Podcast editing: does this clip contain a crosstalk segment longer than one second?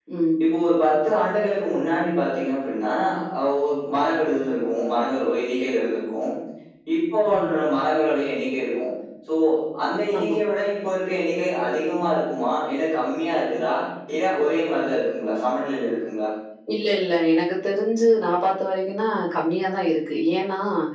No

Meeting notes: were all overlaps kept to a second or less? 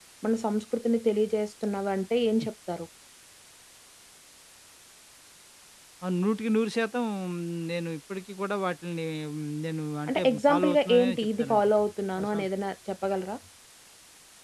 No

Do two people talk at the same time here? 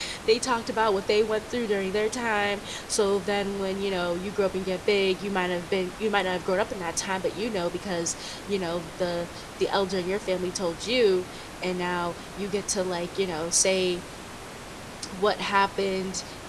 No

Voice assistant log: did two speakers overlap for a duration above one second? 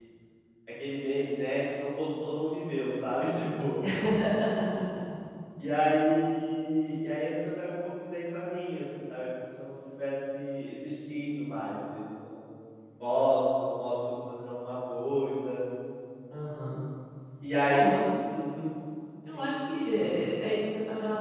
No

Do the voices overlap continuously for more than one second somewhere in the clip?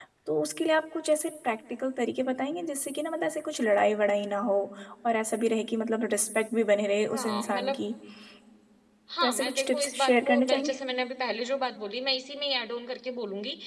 Yes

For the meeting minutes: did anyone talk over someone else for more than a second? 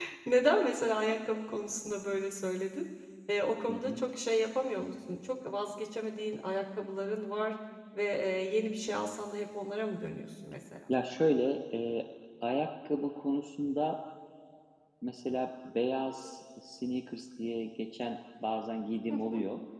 No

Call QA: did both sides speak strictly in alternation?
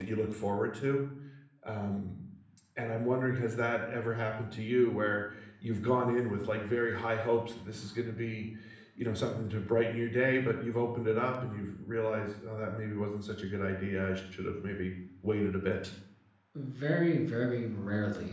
Yes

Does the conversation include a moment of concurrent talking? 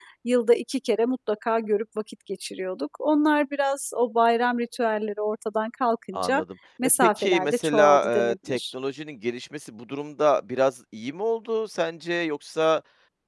Yes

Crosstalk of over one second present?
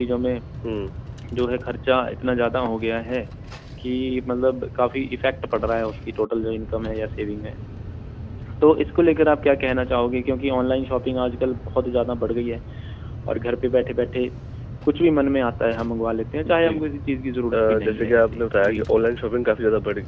Yes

